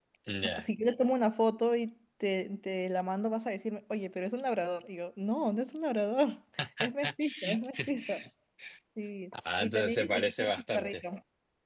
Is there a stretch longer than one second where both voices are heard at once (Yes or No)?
Yes